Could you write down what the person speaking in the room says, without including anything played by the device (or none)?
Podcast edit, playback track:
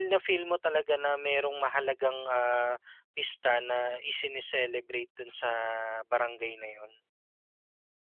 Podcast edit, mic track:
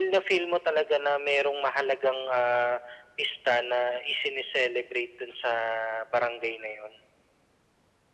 none